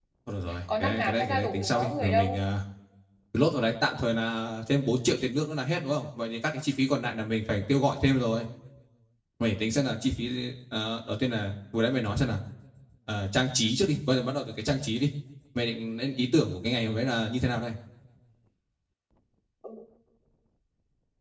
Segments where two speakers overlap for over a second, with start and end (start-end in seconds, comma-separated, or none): 0.8-2.4